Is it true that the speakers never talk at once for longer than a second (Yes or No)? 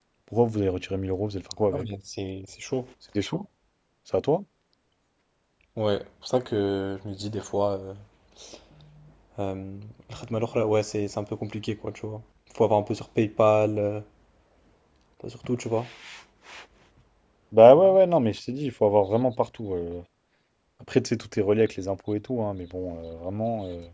Yes